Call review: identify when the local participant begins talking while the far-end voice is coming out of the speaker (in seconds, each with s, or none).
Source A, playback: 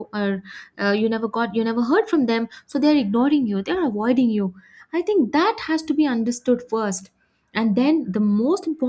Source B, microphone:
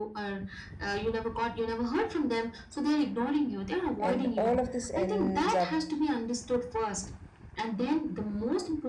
4.0 s